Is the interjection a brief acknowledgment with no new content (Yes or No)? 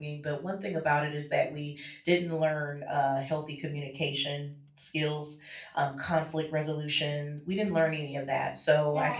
No